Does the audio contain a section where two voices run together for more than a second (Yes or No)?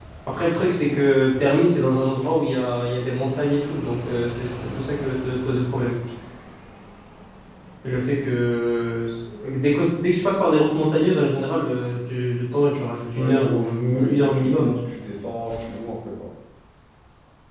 Yes